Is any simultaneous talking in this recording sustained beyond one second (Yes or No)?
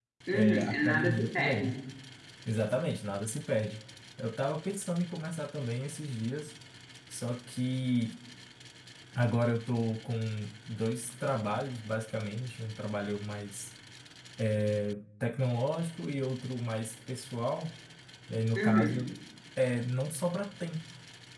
Yes